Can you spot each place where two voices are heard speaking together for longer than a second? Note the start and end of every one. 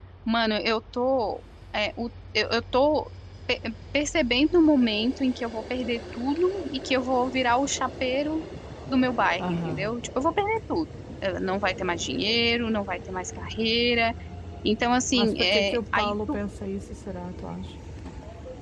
15.1-16.4

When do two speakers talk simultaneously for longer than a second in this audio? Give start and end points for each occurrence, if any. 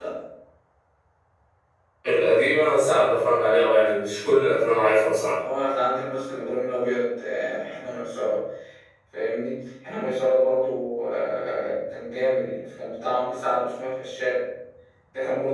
none

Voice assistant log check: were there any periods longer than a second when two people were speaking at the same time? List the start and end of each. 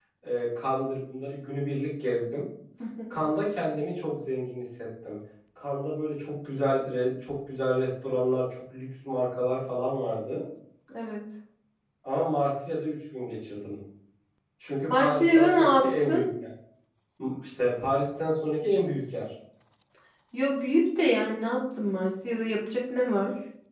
14.9-16.2

